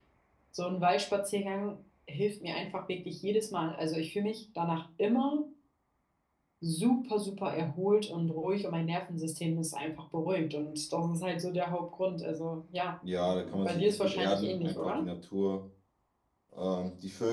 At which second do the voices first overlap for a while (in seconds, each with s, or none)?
13.0 s